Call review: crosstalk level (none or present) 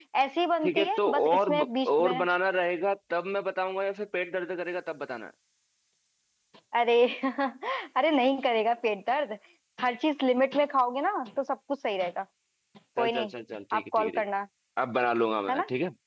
present